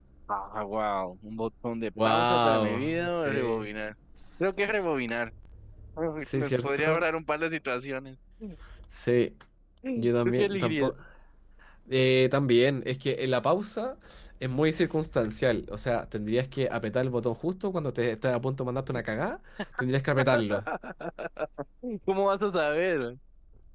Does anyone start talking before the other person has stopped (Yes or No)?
Yes